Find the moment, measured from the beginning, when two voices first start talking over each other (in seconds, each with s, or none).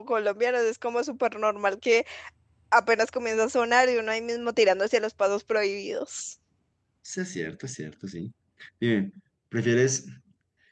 none